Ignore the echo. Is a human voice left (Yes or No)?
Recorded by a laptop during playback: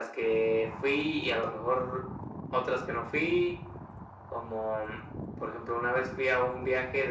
No